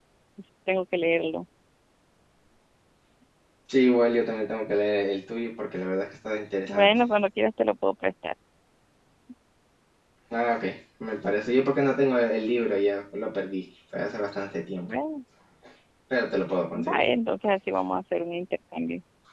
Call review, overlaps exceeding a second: none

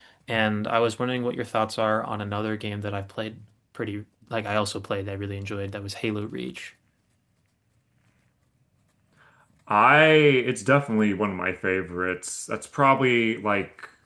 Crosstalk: none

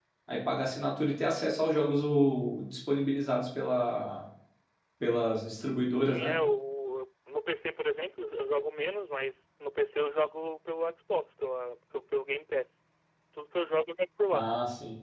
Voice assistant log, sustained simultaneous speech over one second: none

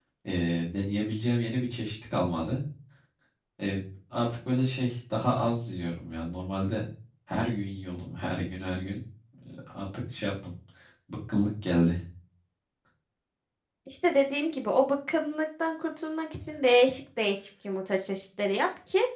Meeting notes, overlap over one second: none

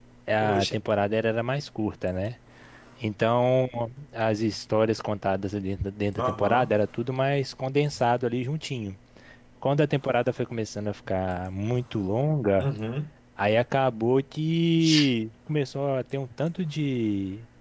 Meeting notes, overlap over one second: none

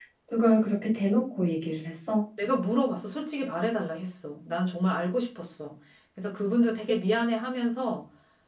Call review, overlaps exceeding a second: none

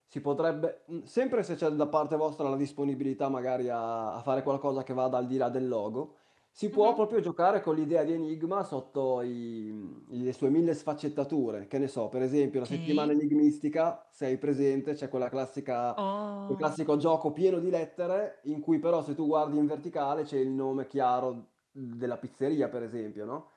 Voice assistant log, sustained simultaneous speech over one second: none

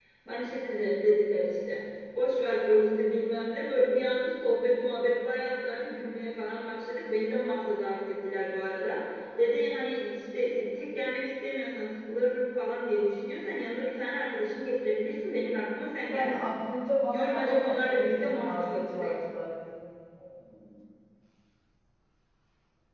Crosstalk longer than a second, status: present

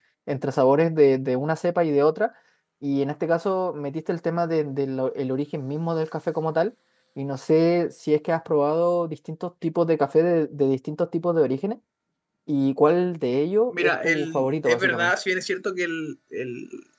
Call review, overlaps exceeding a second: present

